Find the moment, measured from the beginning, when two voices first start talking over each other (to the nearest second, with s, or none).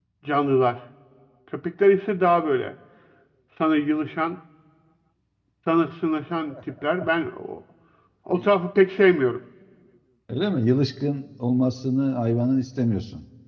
none